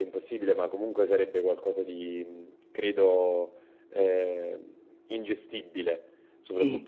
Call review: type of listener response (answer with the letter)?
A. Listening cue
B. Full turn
A